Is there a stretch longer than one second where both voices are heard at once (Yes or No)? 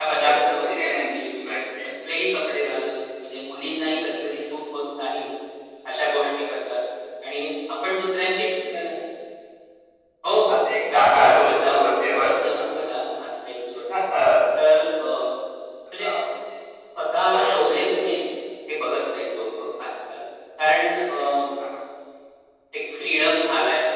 Yes